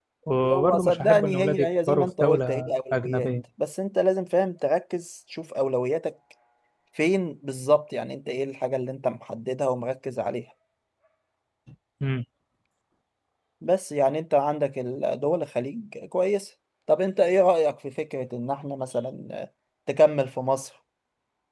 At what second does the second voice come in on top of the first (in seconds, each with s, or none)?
0.5 s